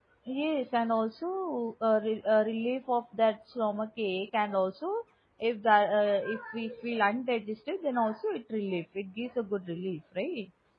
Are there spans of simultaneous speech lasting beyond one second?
No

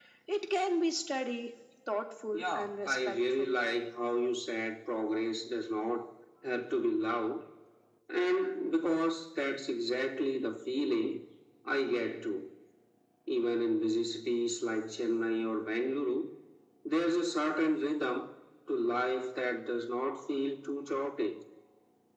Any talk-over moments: Yes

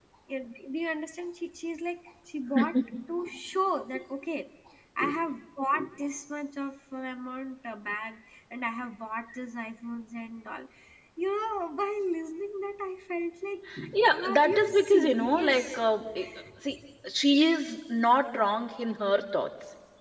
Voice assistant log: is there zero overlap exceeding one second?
No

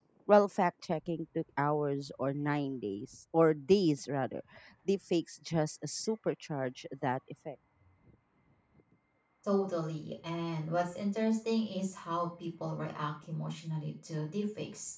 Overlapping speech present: No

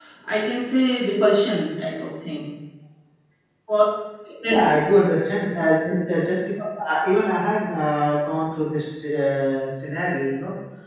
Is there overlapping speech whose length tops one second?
No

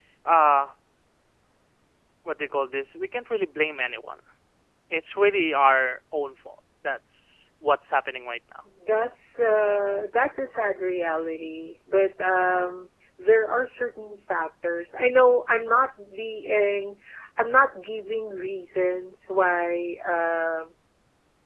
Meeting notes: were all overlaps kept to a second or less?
Yes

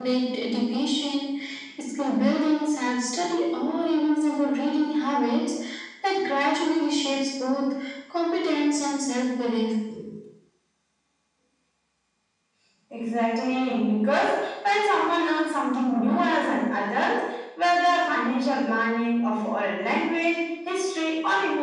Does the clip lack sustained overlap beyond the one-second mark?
Yes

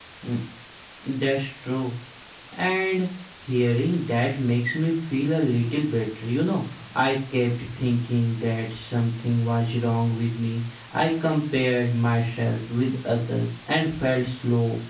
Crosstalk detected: No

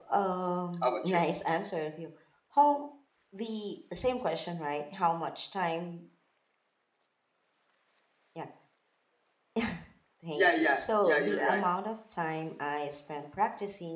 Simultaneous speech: Yes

